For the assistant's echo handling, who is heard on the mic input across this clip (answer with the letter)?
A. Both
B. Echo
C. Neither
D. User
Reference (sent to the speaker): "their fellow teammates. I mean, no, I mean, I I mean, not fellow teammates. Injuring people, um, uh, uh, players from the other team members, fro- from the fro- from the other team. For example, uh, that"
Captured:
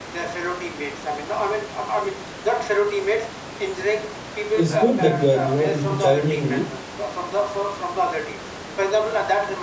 A